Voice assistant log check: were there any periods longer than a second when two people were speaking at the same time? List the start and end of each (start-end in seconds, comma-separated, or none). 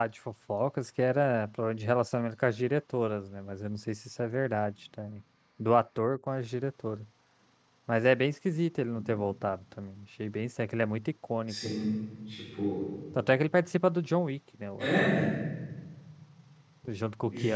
none